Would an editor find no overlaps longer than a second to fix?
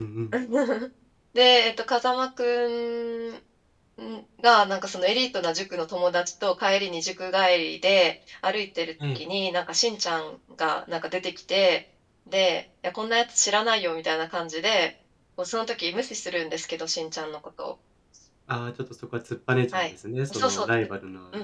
Yes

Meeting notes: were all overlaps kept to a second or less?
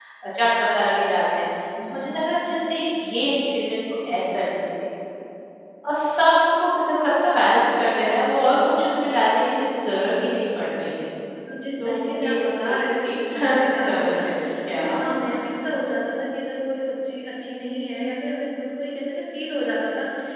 No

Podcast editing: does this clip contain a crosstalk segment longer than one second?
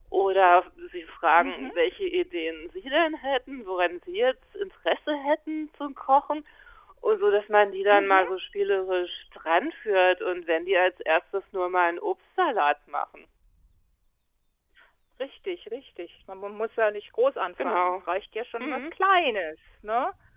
No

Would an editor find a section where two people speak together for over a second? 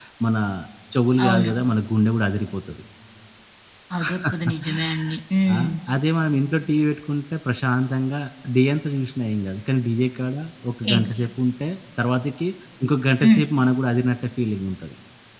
No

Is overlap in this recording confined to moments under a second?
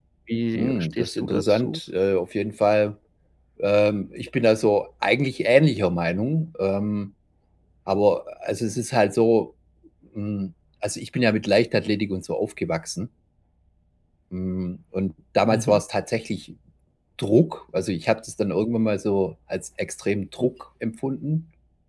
No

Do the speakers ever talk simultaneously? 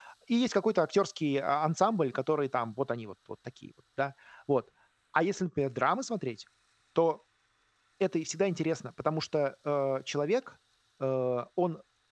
No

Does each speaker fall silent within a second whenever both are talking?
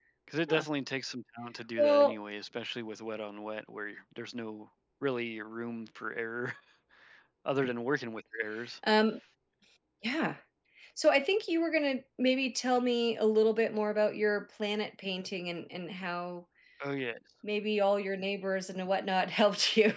Yes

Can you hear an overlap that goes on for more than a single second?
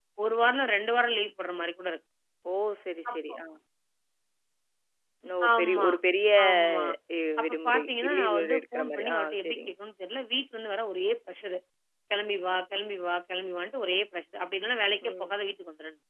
Yes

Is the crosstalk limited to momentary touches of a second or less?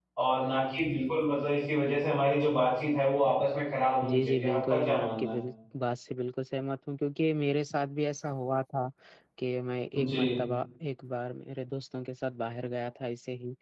No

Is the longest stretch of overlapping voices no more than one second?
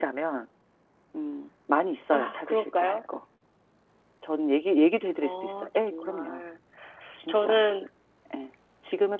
No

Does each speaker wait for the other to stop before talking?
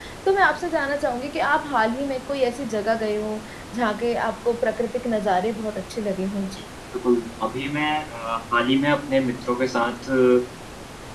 Yes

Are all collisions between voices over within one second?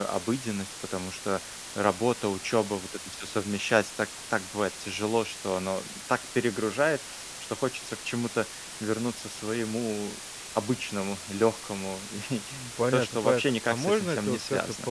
No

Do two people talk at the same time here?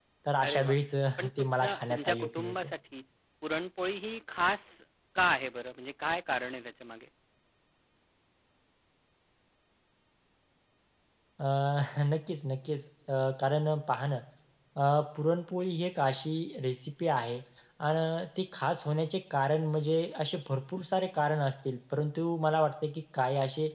Yes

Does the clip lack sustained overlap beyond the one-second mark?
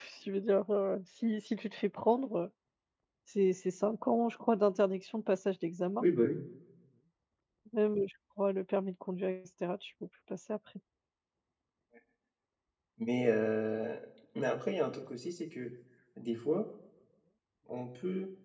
Yes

